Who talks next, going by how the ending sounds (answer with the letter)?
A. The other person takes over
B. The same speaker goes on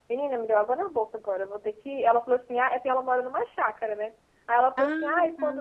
B